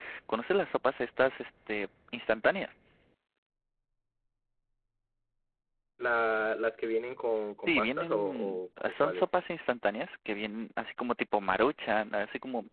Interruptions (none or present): present